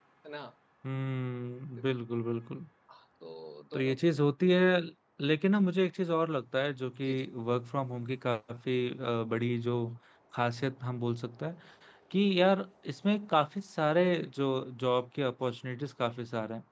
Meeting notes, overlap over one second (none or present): none